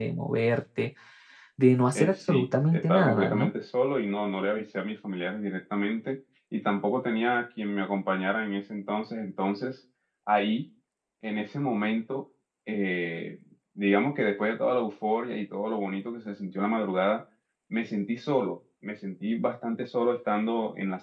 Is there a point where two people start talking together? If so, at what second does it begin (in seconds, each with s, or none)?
1.9 s